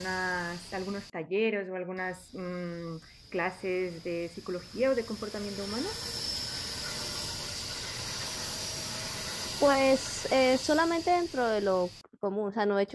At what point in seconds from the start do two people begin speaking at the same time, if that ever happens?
none

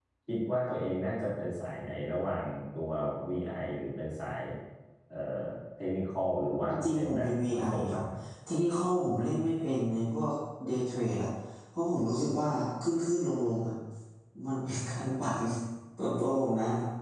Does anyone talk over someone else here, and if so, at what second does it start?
7 s

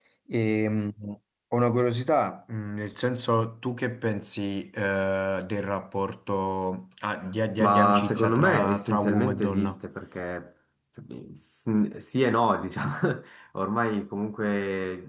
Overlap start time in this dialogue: 8 s

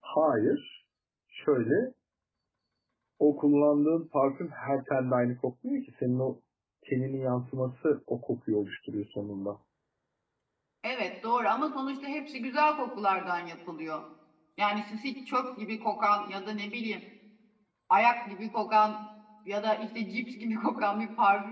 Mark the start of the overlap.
none

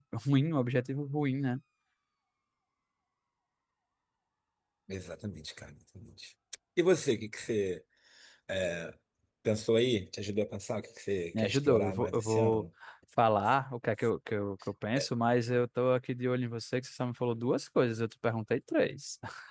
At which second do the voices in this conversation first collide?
11 s

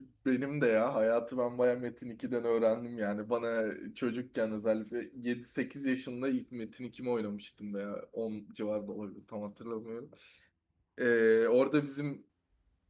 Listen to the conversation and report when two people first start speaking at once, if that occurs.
none

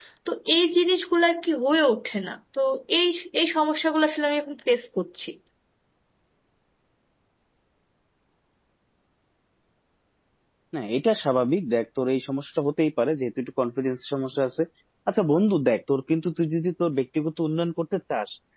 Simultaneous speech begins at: none

